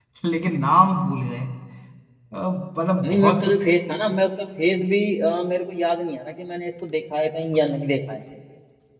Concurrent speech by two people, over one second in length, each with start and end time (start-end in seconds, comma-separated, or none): none